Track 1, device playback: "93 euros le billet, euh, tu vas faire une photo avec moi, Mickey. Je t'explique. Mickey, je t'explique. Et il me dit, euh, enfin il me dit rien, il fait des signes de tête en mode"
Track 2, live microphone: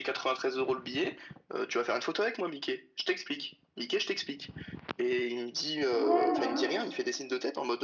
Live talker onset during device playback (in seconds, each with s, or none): 5.9 s